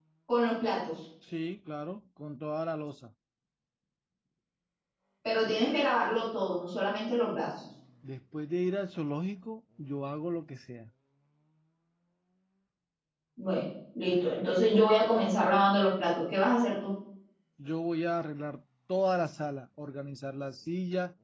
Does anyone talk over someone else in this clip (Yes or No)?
No